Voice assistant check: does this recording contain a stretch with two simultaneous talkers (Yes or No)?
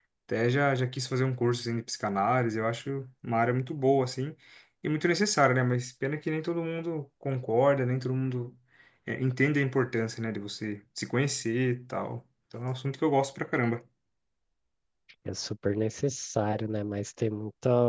No